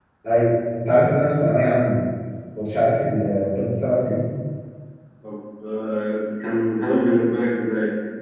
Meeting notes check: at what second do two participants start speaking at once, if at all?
none

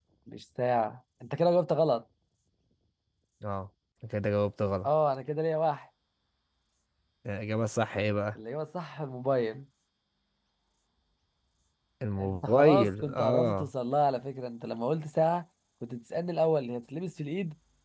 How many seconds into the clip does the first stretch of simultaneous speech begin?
12.2 s

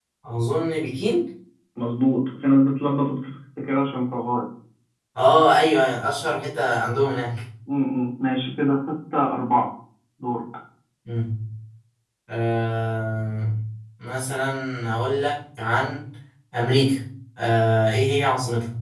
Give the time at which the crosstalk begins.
none

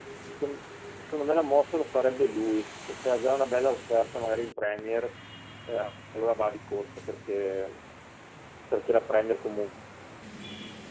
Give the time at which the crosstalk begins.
none

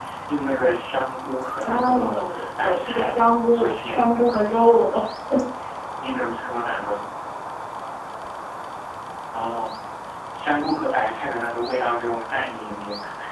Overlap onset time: 1.6 s

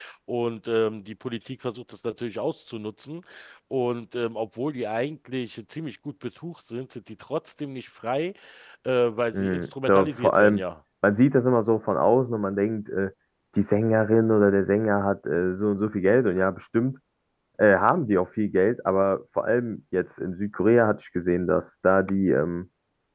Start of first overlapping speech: 9.3 s

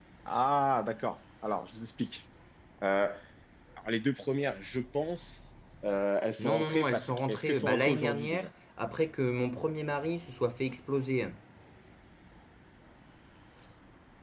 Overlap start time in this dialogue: 6.4 s

